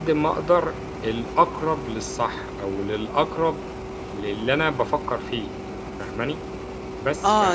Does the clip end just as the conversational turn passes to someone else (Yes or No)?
Yes